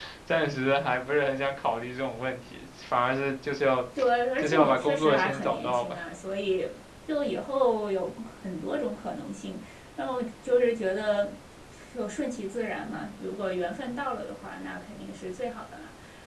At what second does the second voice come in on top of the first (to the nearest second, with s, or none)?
4 s